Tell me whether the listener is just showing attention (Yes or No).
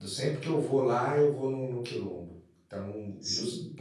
Yes